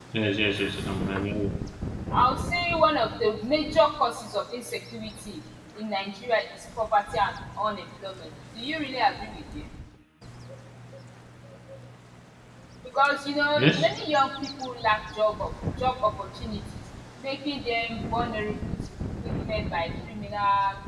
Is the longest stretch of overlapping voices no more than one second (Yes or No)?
Yes